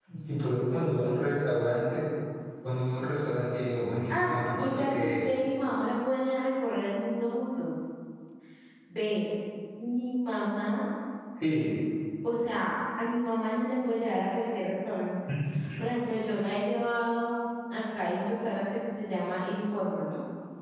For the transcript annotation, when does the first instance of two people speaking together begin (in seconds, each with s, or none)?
4.1 s